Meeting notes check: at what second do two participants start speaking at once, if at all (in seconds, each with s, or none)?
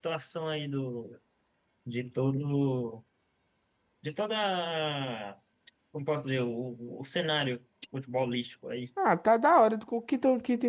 none